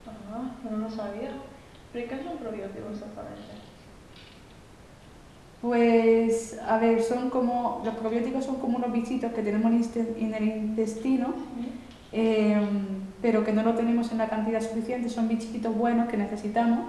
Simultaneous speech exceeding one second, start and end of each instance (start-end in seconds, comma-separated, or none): none